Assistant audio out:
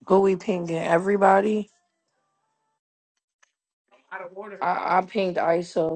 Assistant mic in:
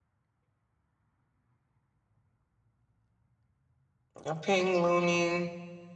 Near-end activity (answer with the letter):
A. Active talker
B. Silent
A